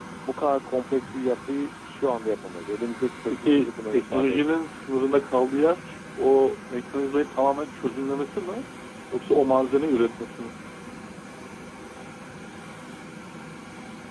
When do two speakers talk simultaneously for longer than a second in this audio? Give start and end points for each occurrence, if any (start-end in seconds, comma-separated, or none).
3.3-4.6